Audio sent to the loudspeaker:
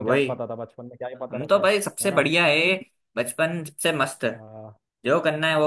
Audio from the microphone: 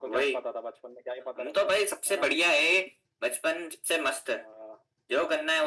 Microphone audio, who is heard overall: echo only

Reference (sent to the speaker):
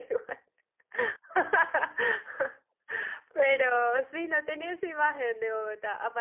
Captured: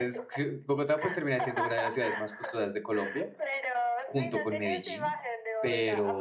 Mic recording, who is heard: both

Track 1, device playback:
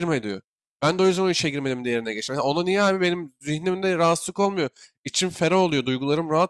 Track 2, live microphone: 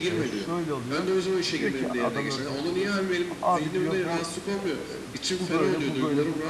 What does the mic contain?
both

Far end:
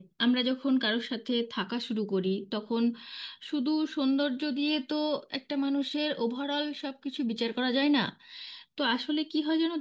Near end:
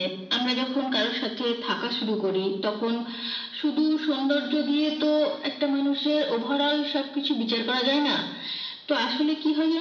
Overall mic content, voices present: echo only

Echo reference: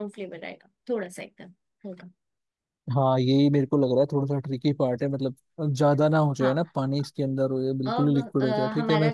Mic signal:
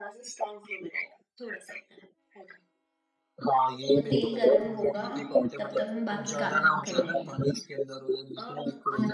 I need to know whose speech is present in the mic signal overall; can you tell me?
both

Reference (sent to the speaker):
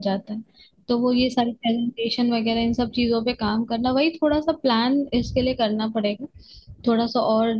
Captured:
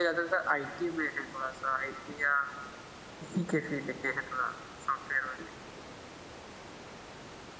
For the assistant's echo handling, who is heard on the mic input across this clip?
user only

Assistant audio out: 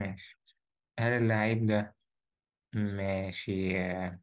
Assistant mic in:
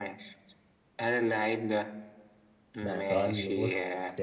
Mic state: both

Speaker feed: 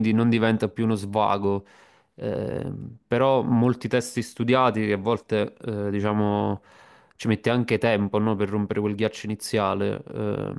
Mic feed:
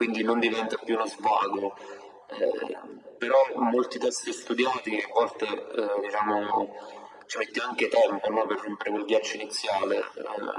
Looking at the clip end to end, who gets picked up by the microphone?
echo only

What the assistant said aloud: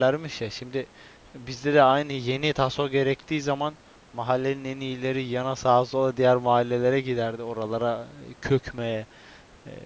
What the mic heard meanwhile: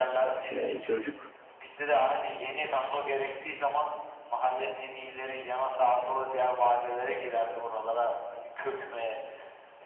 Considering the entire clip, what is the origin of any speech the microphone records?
both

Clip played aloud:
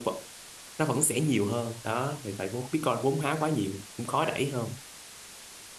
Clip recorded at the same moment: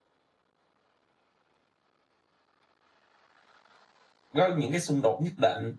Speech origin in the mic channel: user only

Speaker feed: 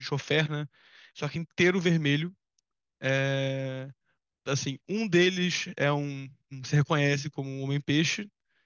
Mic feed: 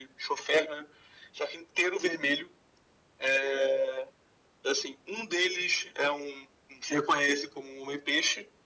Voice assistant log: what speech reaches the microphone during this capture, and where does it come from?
echo only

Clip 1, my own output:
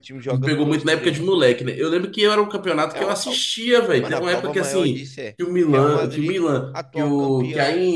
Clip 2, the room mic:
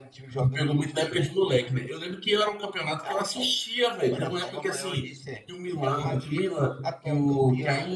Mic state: echo only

